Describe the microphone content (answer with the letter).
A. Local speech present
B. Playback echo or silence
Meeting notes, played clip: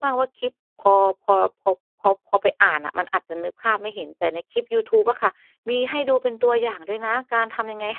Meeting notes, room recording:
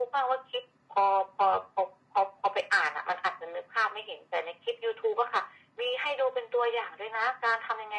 B